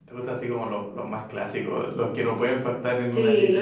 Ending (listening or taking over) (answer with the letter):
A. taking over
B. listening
A